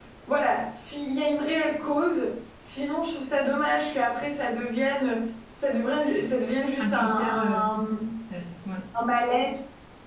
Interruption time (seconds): 6.8 s

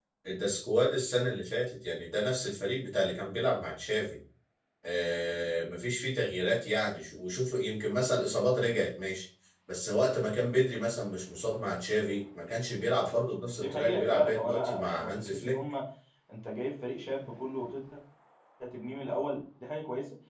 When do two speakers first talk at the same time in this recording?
13.5 s

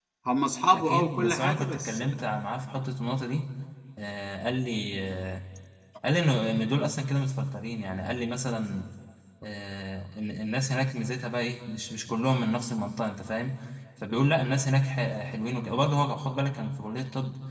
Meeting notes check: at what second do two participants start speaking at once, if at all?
0.7 s

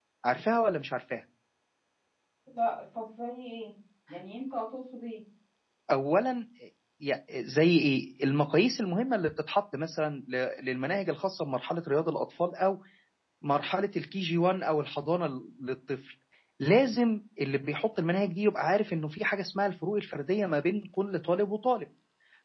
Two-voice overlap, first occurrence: none

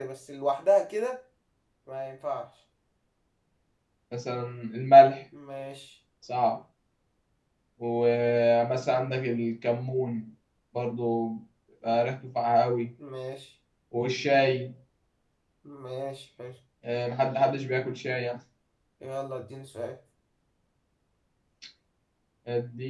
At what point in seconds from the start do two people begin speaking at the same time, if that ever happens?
none

